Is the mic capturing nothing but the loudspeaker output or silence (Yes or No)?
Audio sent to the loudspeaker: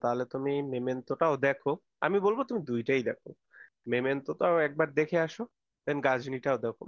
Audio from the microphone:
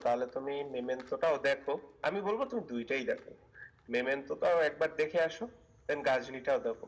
Yes